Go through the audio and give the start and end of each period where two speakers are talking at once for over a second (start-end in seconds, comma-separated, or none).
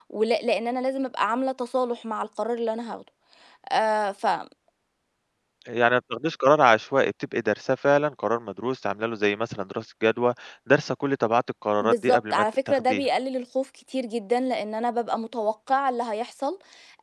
11.8-13.0